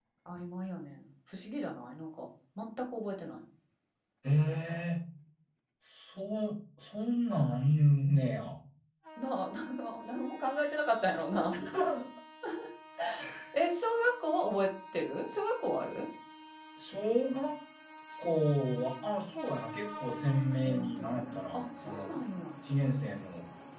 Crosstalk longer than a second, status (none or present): present